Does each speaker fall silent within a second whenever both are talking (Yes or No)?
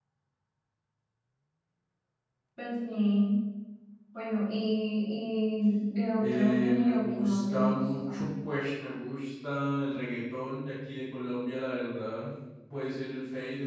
No